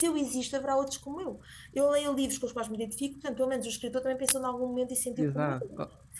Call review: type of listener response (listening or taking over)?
taking over